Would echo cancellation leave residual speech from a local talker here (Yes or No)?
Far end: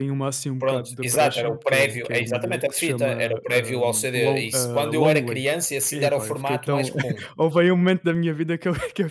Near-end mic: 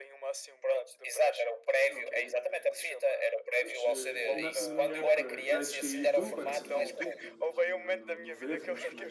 Yes